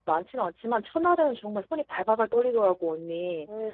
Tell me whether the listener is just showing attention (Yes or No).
No